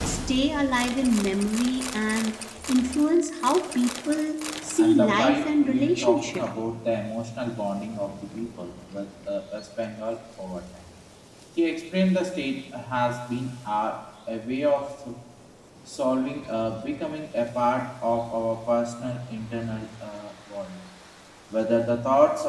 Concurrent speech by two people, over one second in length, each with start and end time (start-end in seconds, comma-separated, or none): 4.8-6.4